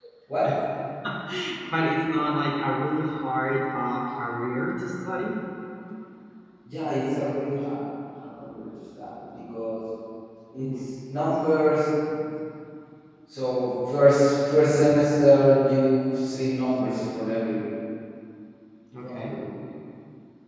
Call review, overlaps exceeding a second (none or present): none